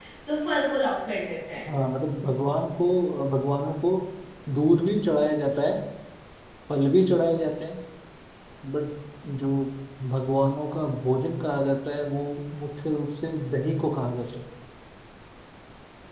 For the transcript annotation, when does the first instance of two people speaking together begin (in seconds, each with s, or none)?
none